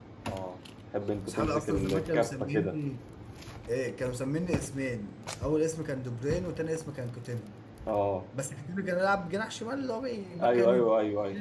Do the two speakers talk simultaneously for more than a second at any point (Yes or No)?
Yes